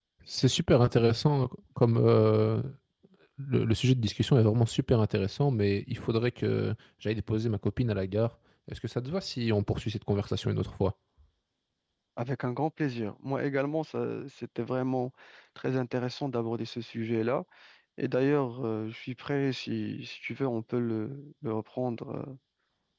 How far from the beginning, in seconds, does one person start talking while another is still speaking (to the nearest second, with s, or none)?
none